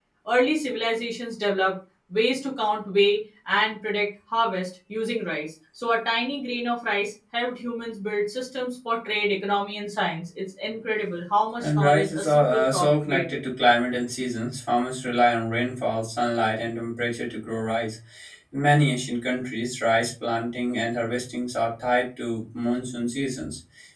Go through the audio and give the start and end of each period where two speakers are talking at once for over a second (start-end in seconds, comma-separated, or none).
11.6-13.4